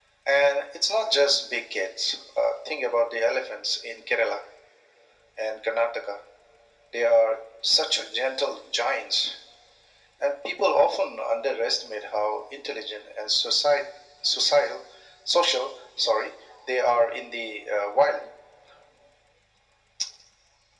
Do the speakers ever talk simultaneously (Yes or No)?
No